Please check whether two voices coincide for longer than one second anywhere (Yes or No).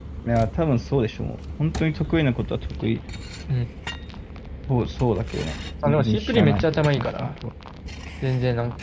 Yes